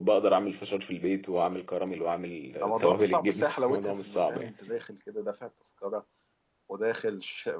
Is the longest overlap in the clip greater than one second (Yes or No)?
Yes